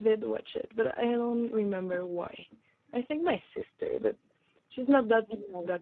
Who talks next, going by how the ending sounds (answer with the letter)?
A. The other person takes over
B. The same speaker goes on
B